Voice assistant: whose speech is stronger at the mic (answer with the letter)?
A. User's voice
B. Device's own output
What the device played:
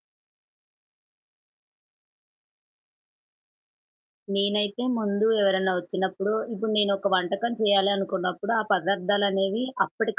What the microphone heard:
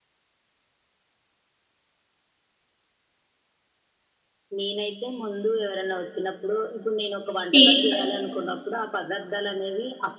A